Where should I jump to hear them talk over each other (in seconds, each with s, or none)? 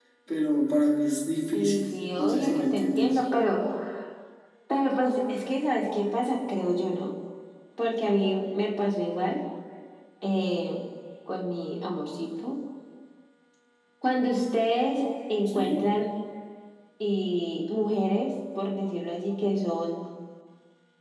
1.5 s